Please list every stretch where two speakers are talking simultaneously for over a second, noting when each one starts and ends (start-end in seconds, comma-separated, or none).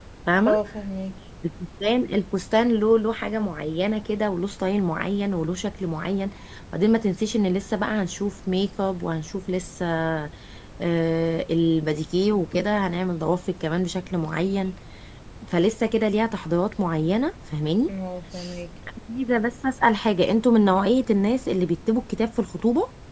none